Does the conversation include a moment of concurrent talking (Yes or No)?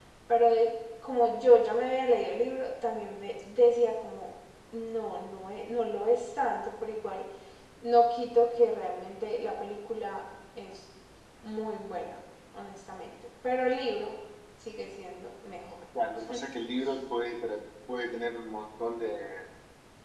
No